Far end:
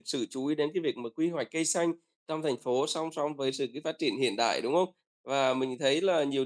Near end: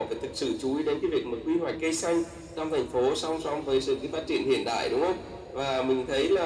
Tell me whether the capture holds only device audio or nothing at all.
Yes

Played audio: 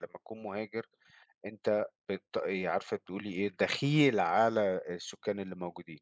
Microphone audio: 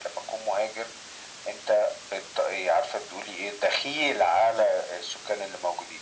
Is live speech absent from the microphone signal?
Yes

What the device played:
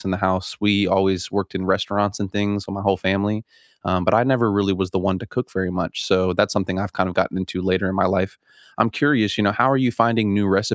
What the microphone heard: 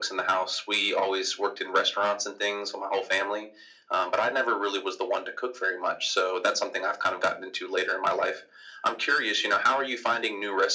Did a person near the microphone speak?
No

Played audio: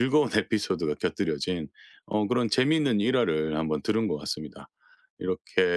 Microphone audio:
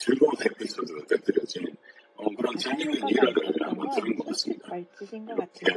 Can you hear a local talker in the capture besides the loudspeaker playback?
Yes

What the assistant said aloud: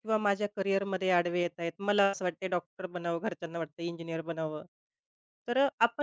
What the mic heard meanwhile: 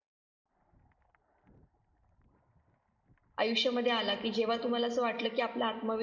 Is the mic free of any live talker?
No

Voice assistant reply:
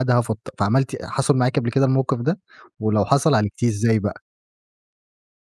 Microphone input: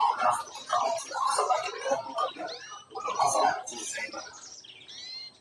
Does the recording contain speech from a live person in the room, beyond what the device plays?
No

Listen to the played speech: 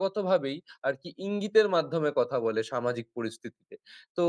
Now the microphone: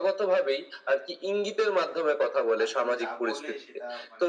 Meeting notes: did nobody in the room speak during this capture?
No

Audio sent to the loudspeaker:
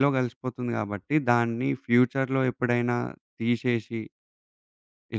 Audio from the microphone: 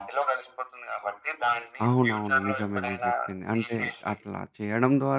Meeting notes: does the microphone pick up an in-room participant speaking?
Yes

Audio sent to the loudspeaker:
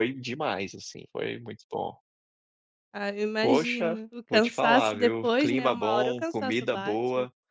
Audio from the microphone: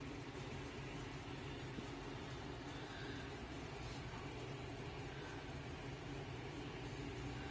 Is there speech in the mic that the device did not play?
No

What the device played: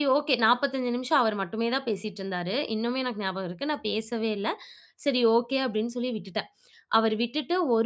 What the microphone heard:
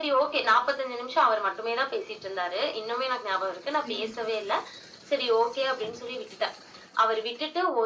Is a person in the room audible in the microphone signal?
Yes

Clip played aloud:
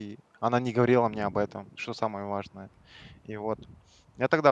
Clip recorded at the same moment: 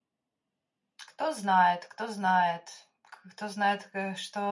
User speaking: Yes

